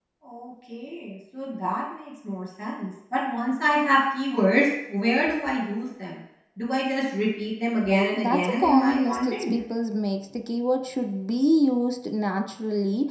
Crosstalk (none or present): present